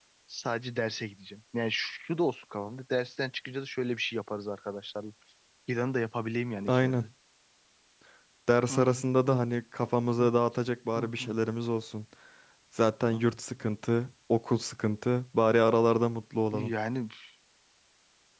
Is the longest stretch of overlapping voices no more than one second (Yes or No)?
Yes